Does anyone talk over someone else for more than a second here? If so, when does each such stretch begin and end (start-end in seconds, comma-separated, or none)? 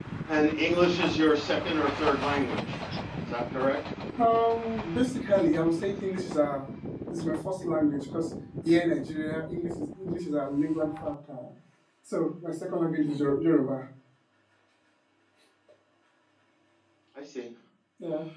none